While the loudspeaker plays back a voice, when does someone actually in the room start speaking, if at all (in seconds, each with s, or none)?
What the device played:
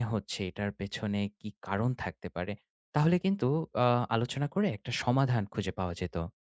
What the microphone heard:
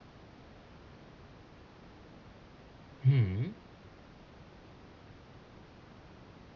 3.0 s